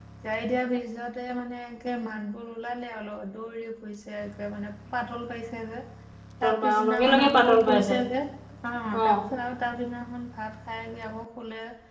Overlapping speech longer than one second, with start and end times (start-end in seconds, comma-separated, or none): 6.4-8.0